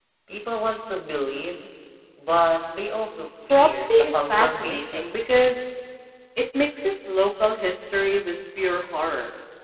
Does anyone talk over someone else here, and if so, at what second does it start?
3.5 s

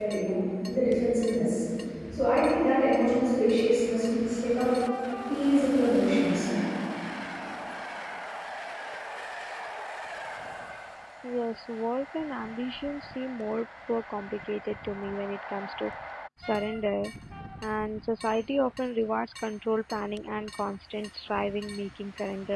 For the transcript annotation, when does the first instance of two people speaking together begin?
none

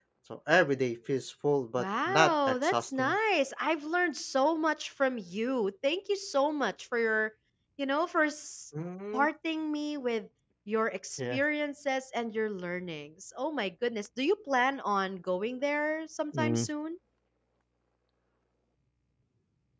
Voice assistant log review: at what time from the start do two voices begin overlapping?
1.8 s

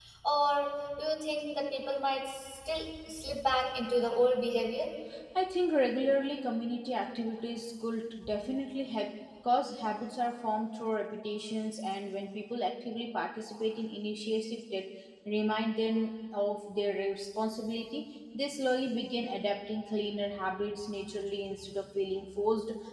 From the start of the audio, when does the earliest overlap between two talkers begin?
none

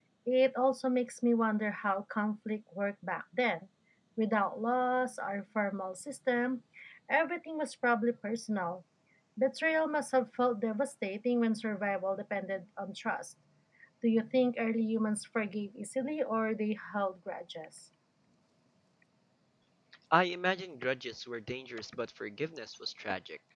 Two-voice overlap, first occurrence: none

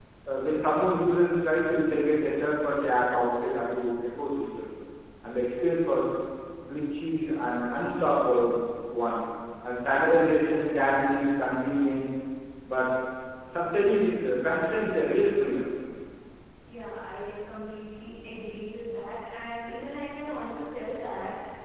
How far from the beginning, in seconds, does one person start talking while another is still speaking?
none

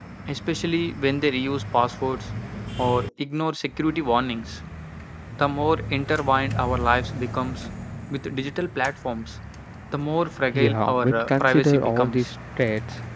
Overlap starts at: 10.5 s

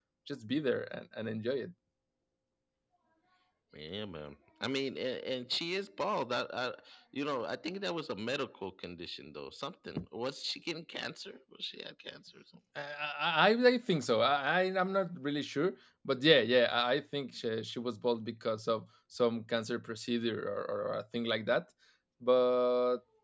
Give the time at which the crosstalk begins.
none

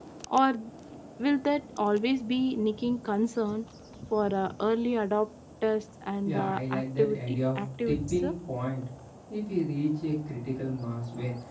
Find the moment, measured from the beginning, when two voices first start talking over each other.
6.2 s

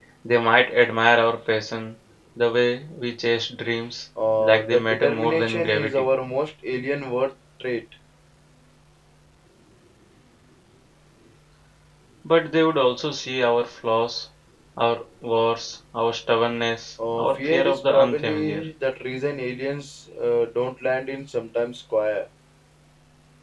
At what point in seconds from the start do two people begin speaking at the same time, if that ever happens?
4.4 s

